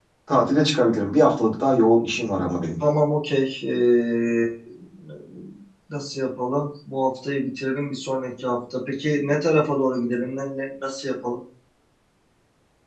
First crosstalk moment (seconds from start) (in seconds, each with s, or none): none